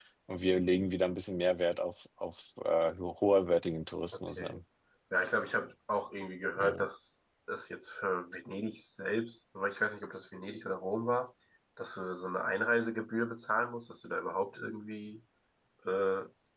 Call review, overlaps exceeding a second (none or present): none